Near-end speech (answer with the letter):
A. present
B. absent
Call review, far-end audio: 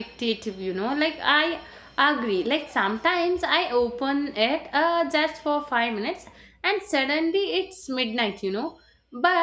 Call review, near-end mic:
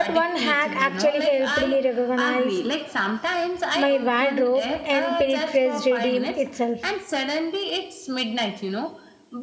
A